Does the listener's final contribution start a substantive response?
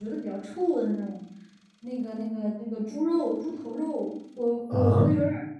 No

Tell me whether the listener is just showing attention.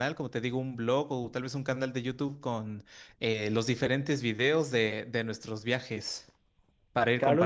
No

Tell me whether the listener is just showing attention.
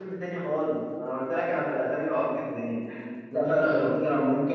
Yes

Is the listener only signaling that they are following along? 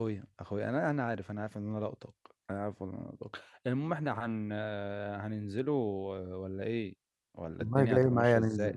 No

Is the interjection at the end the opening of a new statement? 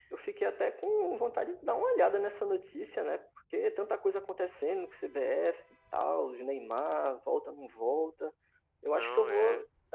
No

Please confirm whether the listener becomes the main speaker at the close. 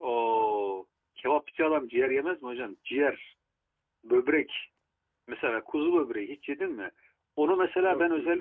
No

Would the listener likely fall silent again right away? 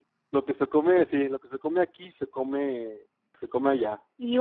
No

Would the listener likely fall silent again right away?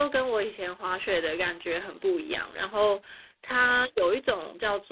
Yes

